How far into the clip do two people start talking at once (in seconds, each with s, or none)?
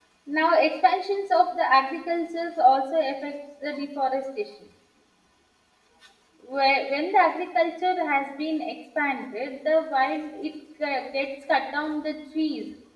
none